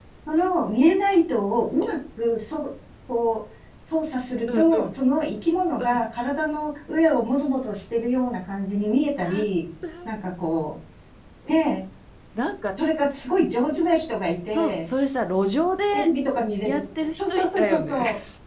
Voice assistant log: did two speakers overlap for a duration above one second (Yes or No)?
Yes